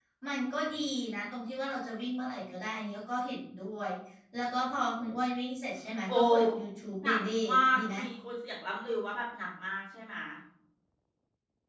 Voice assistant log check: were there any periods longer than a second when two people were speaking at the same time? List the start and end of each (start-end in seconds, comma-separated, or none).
none